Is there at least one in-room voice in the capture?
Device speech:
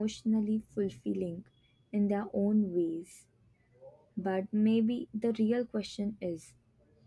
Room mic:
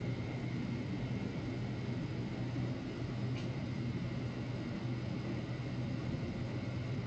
No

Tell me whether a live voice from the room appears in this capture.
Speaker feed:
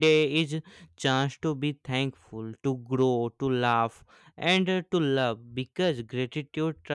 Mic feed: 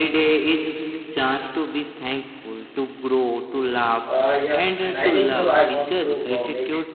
Yes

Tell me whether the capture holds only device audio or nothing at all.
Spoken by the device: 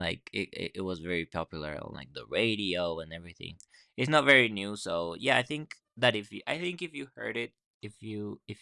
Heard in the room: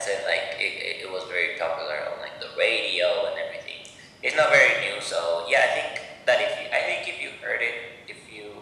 Yes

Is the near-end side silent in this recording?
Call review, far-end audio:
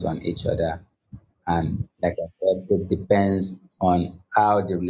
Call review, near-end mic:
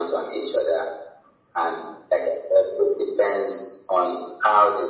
Yes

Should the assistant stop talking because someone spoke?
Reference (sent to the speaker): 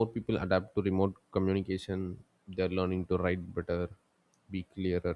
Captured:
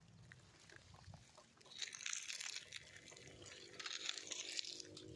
No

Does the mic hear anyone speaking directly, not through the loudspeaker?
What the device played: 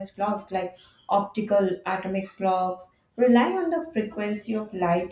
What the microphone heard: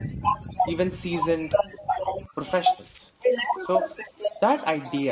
Yes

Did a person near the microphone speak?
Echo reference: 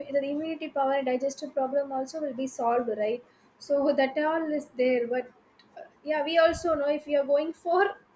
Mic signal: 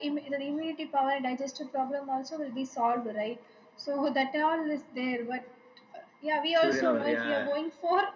Yes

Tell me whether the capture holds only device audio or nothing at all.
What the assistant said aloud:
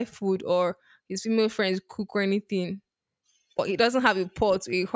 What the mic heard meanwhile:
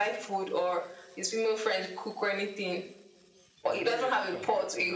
No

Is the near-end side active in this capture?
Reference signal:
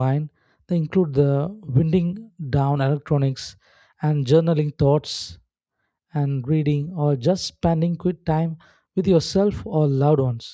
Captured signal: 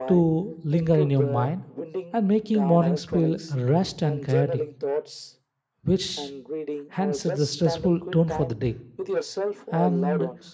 Yes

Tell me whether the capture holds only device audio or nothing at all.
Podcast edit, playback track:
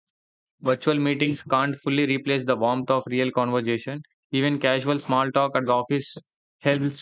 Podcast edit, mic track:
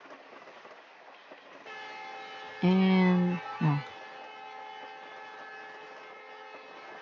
No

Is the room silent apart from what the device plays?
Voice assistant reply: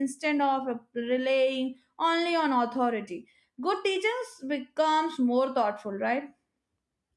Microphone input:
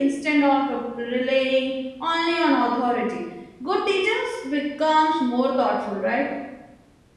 Yes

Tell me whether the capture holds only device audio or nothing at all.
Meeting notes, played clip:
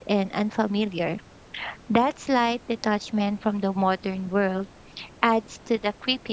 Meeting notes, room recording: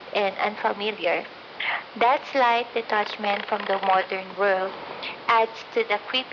Yes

